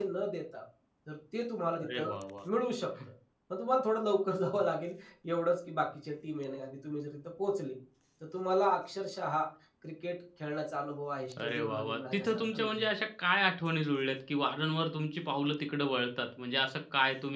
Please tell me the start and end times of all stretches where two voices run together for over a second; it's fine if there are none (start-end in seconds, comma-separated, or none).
11.4-12.8